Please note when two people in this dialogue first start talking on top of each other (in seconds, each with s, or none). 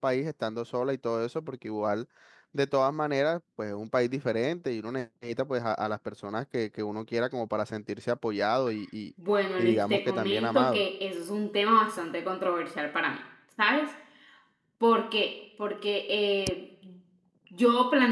9.6 s